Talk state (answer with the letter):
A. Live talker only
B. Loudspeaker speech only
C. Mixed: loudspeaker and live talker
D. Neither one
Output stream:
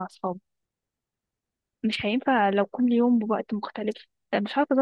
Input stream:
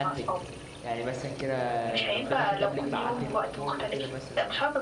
C